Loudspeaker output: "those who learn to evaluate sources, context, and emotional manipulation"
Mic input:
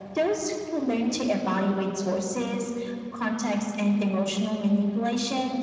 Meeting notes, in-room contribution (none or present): none